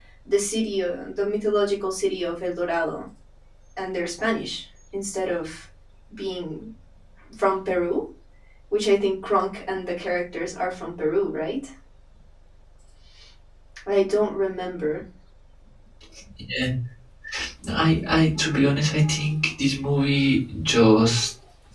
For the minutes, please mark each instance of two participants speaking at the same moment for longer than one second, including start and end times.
none

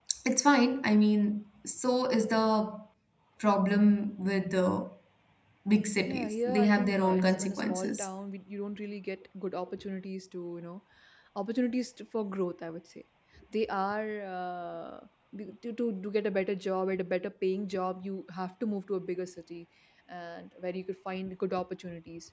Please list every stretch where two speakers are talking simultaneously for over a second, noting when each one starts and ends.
6.0-8.1

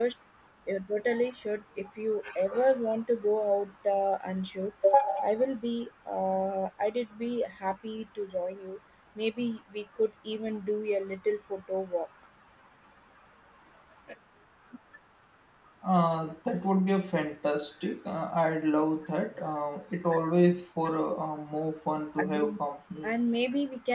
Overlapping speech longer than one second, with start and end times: none

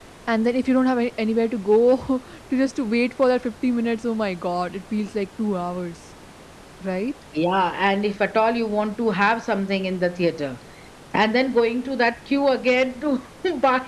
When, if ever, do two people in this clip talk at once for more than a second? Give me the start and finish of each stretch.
none

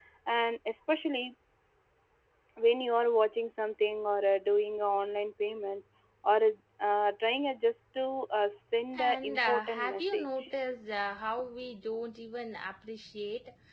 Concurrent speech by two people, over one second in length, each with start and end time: 8.9-10.5

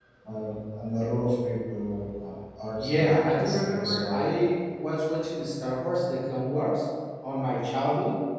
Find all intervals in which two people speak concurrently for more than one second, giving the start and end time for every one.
2.8-4.2

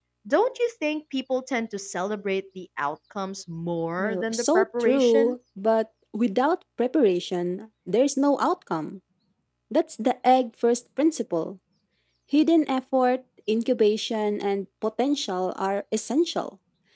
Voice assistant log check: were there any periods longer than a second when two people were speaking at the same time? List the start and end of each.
4.0-5.3

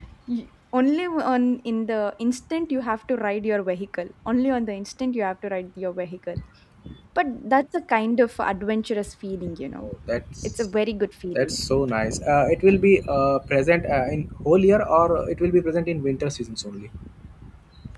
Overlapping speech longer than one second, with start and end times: none

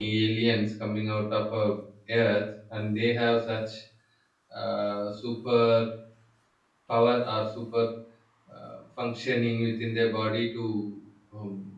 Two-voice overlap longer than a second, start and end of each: none

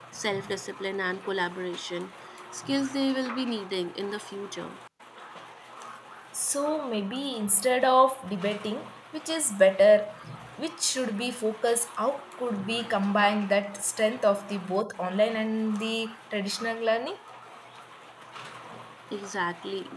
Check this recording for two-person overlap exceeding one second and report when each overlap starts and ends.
none

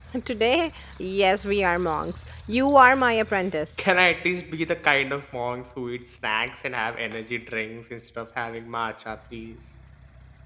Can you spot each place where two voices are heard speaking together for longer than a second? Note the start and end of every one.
none

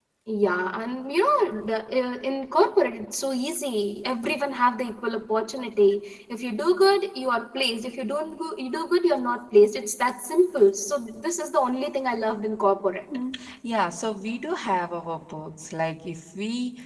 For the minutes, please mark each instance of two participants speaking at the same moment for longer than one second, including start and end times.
none

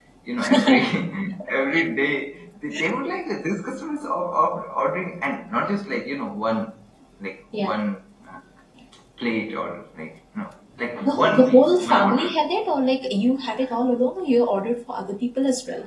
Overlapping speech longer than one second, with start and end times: 11.0-12.3

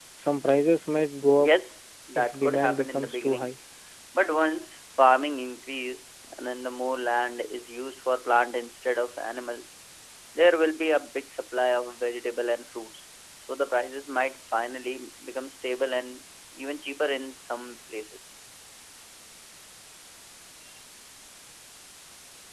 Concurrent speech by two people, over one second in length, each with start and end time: 2.2-3.5

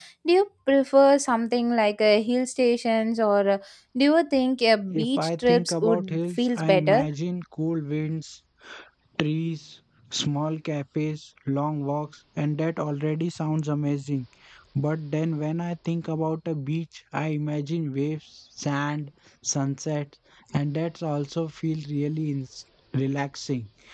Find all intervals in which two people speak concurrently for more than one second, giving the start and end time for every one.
4.9-7.0

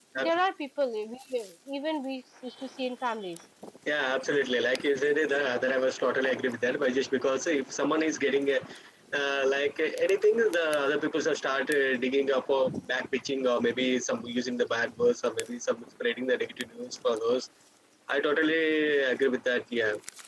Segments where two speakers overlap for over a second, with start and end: none

